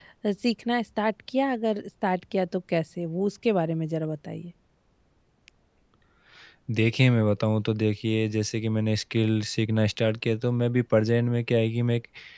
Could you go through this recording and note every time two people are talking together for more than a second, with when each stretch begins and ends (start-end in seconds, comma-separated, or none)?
none